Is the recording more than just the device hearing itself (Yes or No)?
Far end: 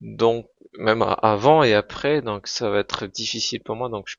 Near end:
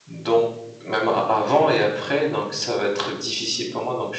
No